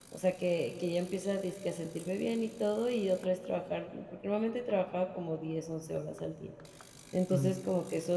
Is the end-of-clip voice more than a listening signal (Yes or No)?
No